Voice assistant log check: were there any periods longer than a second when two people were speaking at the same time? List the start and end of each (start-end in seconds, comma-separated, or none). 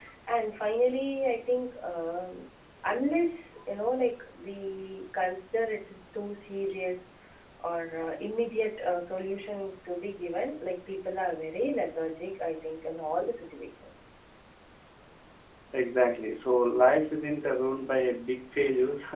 none